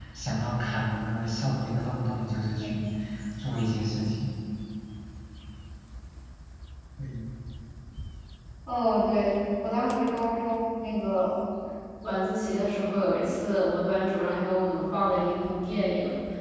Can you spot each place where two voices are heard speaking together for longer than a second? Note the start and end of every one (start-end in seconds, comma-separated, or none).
none